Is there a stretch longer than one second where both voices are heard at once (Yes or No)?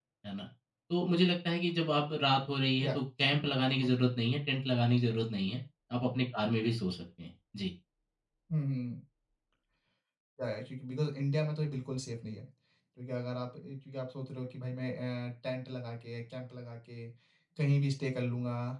No